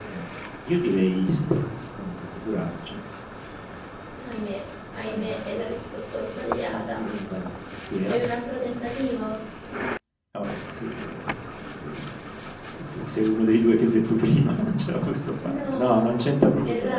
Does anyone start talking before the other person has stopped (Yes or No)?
Yes